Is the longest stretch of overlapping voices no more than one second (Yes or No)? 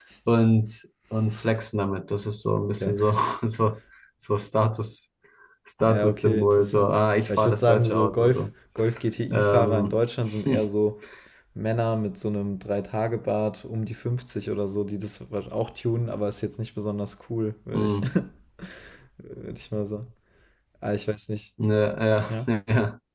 No